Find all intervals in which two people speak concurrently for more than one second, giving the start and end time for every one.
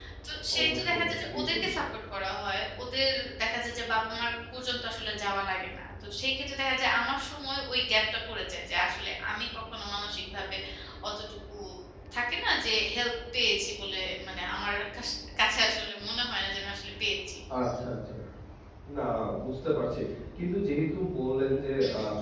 0.6-1.8

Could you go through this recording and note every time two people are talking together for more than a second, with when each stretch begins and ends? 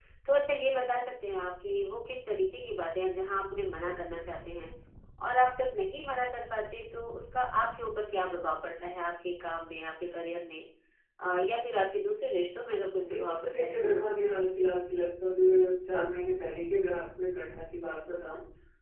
13.0-14.5

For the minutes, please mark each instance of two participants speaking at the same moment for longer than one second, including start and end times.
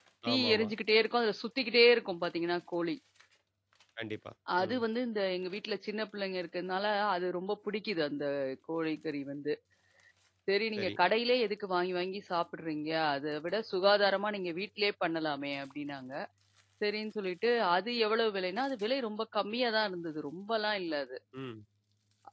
none

